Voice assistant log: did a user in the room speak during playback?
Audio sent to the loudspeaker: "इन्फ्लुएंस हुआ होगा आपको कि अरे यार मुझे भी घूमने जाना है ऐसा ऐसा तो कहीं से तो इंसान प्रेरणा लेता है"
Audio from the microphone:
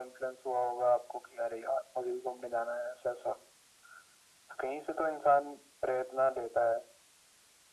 No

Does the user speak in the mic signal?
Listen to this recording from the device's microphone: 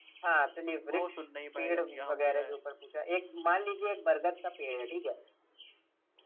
Yes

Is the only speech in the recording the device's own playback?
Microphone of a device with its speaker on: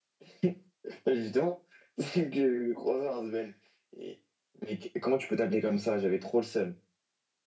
No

